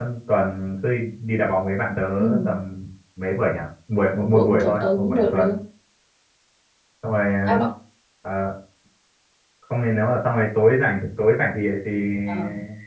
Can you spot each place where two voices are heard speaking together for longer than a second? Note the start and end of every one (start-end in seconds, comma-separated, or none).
4.1-5.5